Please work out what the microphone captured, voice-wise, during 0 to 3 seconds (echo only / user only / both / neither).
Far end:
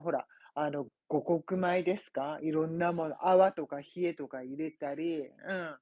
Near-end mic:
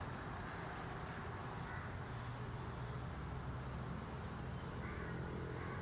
neither